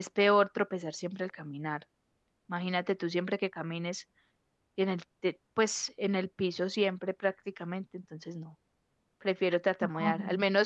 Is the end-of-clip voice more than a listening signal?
No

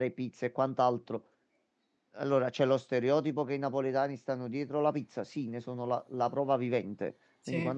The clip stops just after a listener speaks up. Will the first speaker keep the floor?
Yes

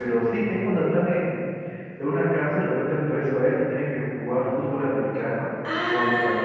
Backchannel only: No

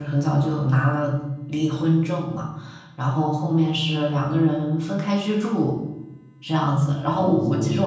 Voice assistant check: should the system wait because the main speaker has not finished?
Yes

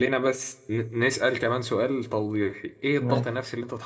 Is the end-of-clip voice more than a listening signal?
No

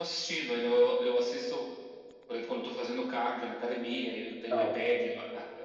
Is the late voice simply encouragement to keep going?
Yes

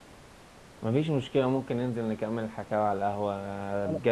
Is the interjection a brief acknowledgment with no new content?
Yes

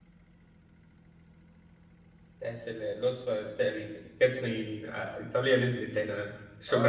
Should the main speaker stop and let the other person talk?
Yes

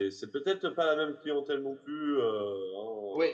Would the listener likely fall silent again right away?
No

